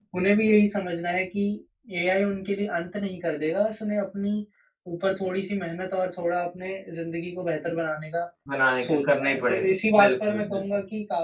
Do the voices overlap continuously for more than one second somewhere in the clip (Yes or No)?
Yes